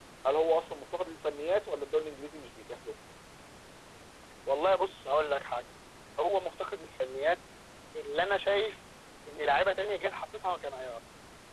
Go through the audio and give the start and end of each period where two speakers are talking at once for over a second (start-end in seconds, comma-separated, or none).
none